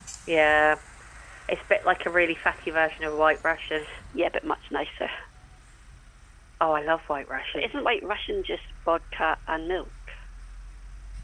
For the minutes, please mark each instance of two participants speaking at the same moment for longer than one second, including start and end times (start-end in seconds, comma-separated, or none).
none